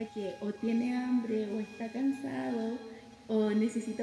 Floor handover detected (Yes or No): No